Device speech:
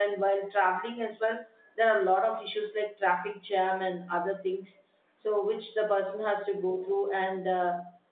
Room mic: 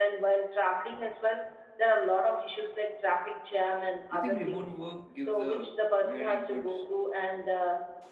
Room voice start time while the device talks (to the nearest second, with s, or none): 4 s